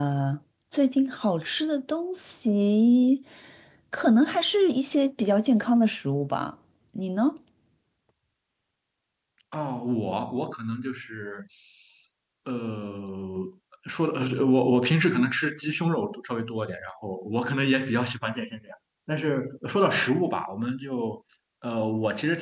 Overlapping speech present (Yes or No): No